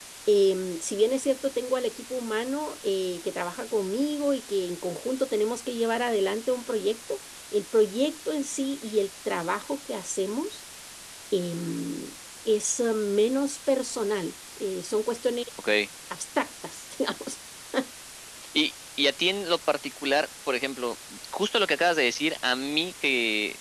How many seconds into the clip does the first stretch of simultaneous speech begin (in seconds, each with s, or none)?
none